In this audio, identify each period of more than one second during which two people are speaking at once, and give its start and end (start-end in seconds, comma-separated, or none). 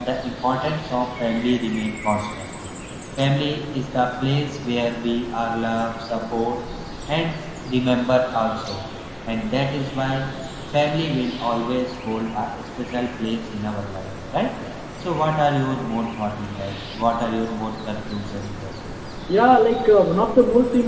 none